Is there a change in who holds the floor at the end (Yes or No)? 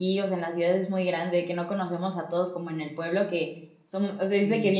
No